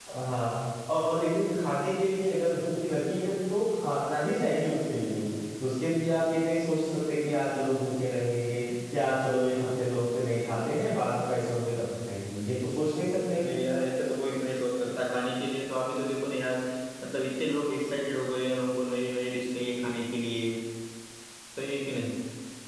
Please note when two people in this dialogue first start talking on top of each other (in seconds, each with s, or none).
none